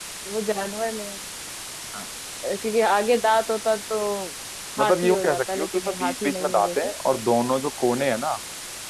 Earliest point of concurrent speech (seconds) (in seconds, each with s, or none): 4.8 s